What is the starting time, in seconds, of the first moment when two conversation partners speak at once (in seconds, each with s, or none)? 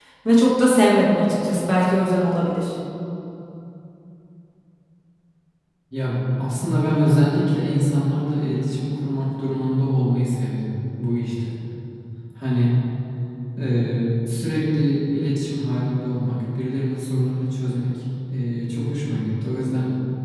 none